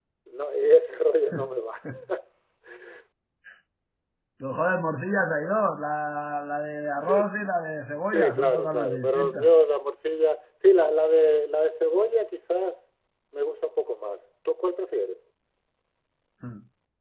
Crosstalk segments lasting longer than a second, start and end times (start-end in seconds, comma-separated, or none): 8.1-9.5